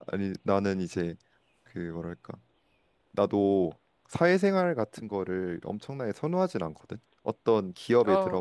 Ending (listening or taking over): listening